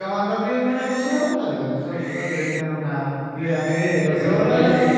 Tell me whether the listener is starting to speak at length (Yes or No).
Yes